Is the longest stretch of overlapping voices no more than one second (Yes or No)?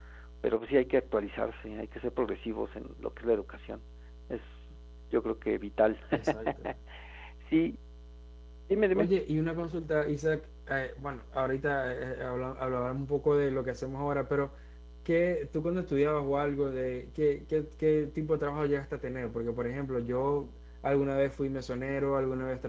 Yes